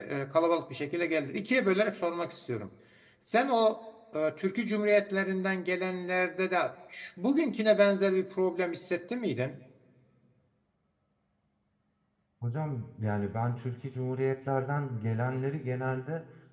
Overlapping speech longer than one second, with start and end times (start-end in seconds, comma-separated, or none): none